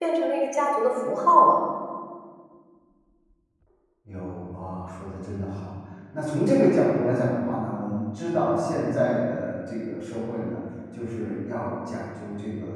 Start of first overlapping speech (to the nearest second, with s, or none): none